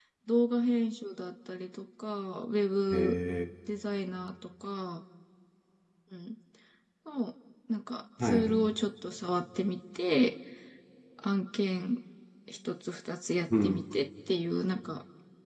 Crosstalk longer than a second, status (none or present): none